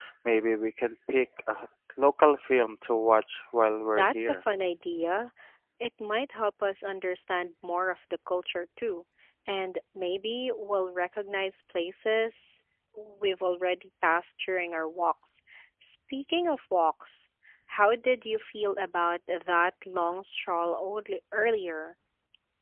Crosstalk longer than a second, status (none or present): none